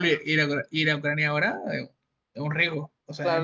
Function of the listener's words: taking over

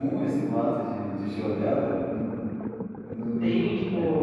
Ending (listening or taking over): taking over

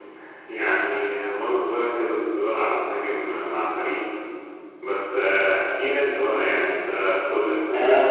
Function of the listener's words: taking over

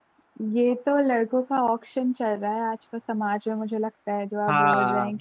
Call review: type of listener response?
listening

